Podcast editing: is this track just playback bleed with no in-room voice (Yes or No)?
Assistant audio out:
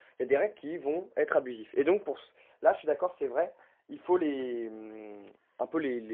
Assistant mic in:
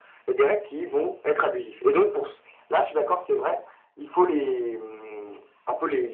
Yes